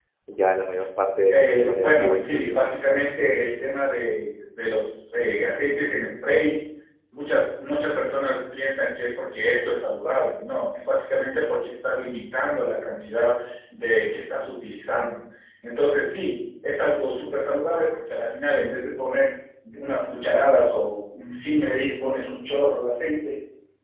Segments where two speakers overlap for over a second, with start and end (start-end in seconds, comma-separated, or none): 1.3-2.6